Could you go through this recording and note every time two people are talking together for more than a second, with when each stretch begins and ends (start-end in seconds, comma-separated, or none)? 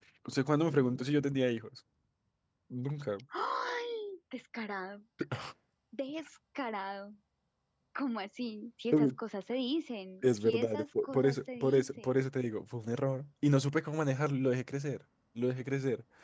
10.2-12.2